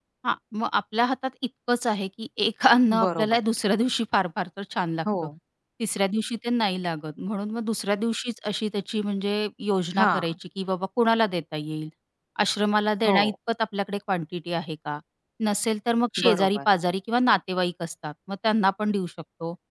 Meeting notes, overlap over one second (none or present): none